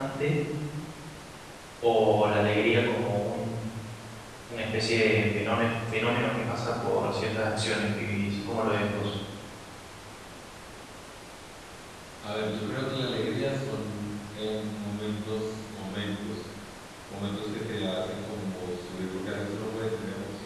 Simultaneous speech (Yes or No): No